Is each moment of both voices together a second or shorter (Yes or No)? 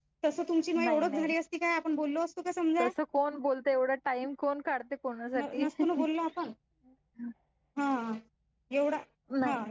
Yes